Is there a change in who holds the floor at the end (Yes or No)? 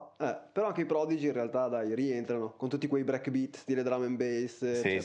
Yes